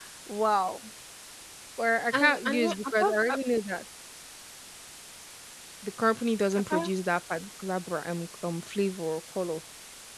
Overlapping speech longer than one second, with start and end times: 2.1-3.4

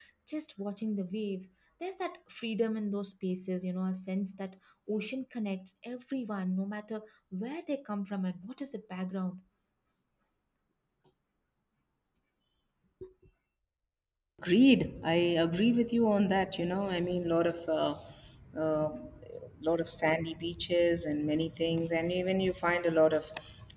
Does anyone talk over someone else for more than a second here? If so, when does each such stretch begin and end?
none

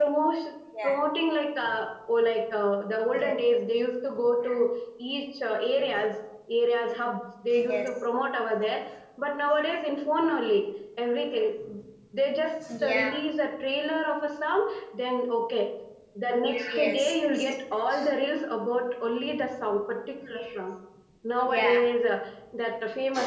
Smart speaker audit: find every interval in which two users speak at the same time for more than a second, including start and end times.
16.7-18.1

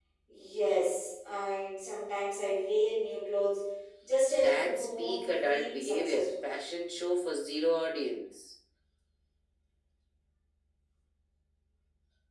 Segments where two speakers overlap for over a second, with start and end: 4.4-6.4

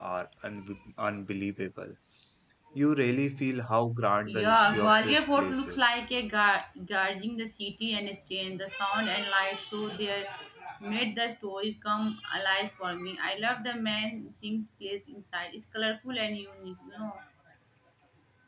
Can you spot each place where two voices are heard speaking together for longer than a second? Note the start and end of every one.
4.2-5.9

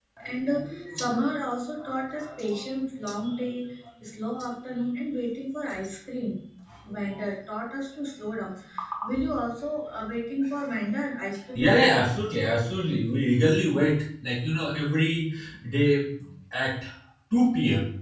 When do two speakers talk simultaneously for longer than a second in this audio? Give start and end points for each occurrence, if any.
none

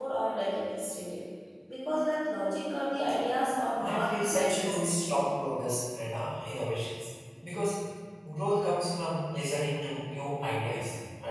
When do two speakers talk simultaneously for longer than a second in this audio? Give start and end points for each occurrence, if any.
3.8-5.2

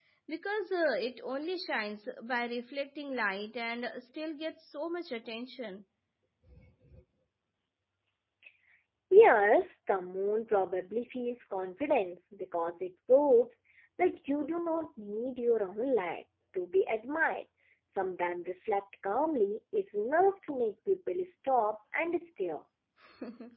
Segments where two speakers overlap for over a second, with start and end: none

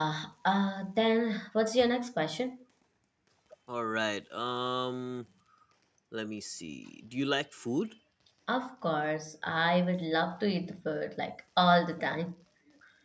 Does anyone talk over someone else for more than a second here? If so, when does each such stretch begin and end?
none

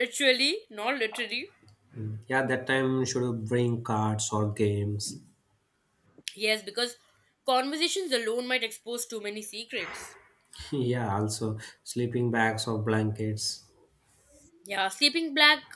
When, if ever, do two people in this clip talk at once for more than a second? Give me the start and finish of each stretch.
none

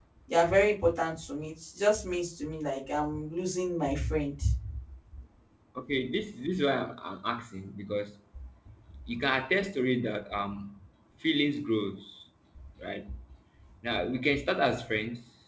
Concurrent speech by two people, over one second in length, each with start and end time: none

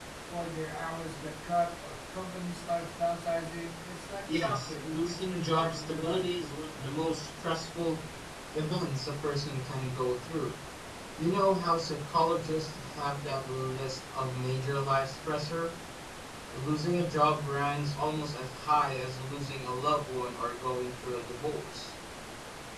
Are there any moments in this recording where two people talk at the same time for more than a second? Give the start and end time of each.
4.3-6.2

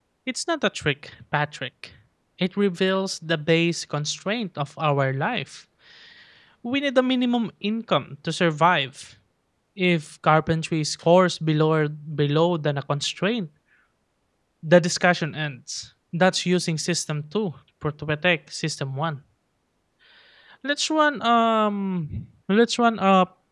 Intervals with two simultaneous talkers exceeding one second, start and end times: none

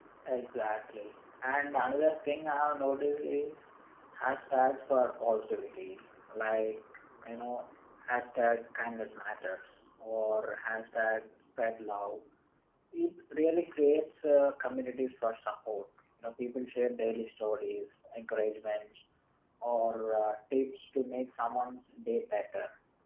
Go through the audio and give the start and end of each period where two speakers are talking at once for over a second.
none

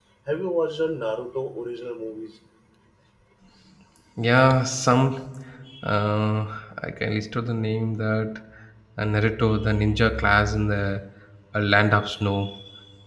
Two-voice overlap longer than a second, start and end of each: none

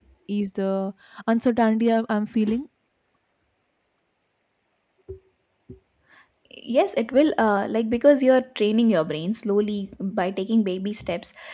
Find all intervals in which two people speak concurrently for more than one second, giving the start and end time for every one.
none

